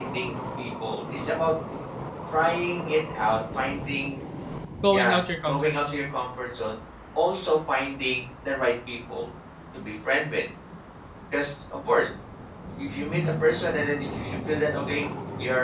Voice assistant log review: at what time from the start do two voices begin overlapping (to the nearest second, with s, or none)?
5 s